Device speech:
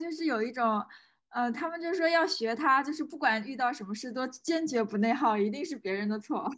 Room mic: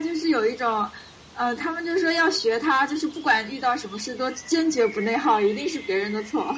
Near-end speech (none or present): none